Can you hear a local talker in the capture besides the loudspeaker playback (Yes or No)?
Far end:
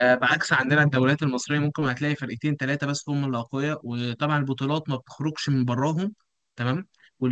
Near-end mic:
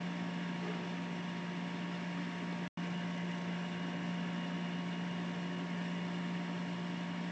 No